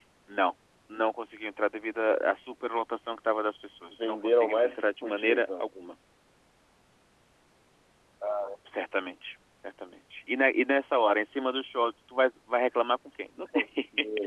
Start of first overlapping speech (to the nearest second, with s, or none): 4 s